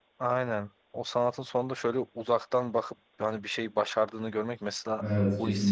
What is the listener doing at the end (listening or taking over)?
listening